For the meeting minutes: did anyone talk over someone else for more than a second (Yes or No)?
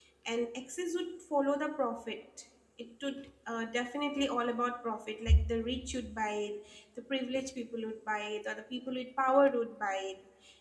No